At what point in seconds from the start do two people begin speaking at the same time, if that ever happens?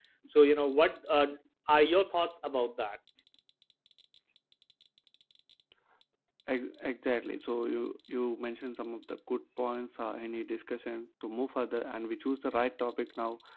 none

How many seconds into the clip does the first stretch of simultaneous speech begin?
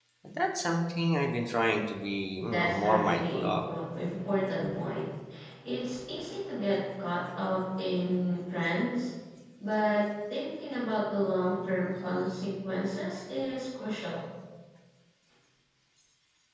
2 s

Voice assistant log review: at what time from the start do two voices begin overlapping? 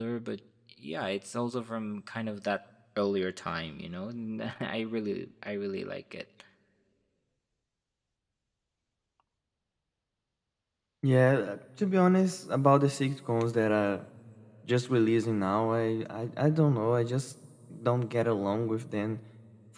none

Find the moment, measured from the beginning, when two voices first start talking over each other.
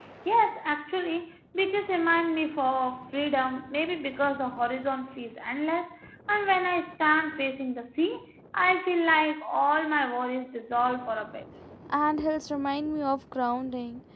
none

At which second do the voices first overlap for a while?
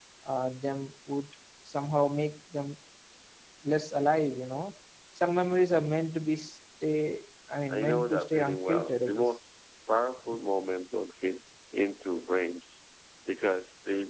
8 s

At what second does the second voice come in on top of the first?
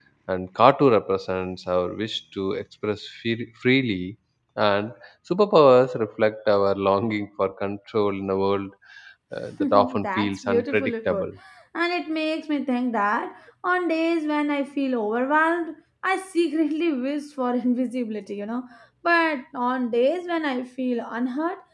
10 s

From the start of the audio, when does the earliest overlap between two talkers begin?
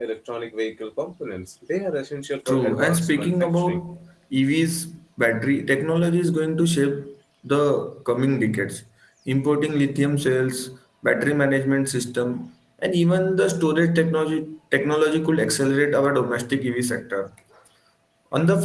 2 s

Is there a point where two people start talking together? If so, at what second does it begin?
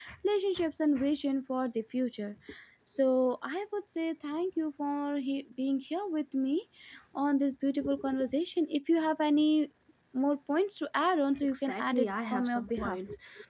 12 s

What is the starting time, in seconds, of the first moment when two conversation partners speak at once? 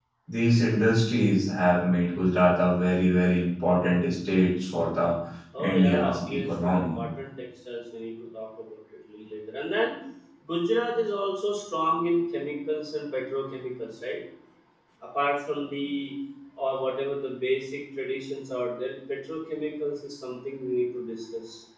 6 s

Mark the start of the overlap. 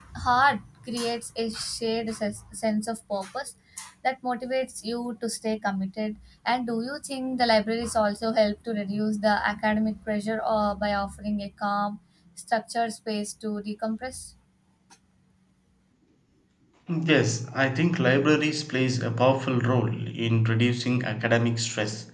none

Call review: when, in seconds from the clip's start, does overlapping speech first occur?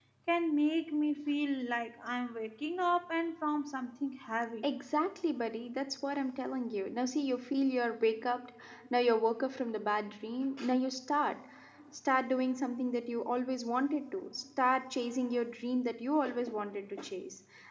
none

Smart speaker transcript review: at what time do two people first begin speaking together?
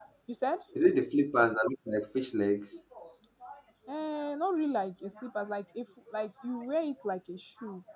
none

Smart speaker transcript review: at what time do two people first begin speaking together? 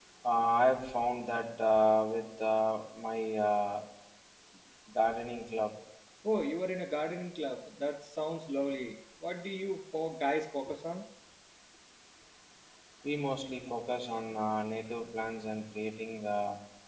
none

